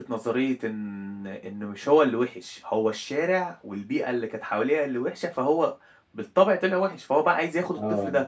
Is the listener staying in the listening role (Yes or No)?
Yes